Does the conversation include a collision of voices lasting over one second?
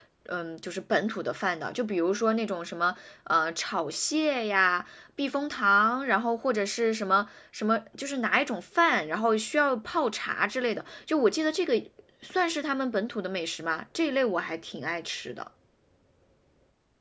No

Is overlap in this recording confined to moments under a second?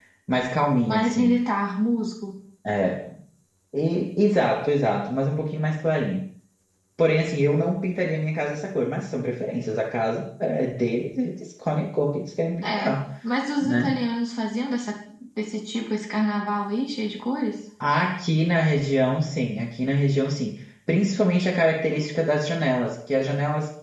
Yes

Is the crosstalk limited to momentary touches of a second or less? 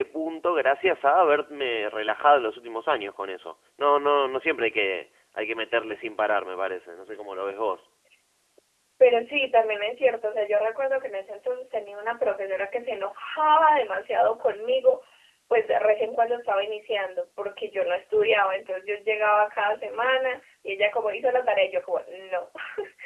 Yes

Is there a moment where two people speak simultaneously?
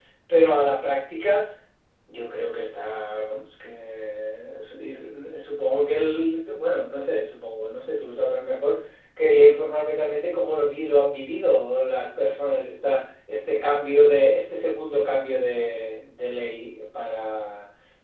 No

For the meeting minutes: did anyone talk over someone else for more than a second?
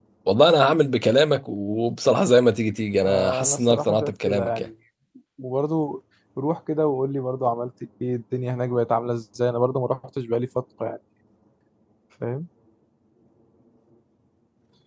Yes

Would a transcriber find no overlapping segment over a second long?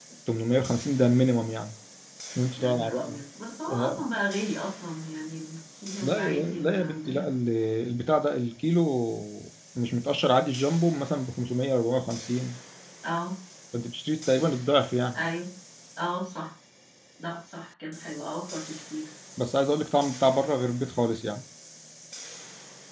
No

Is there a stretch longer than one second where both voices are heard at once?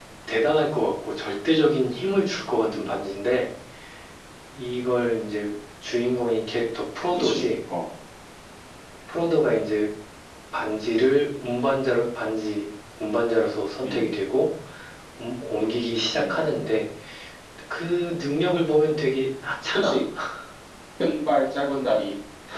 No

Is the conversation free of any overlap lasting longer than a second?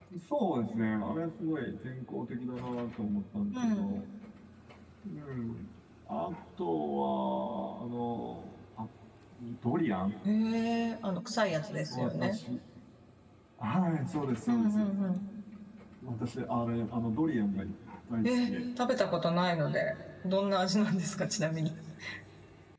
Yes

